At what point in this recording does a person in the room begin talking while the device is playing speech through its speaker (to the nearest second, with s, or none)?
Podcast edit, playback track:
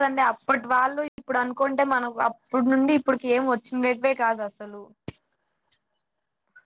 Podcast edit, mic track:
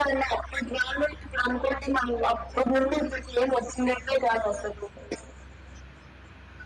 none